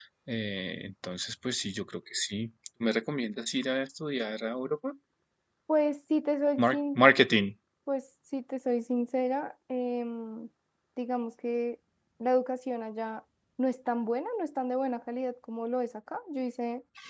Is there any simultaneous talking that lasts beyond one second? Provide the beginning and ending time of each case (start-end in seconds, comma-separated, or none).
none